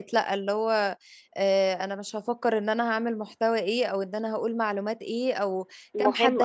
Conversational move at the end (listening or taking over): listening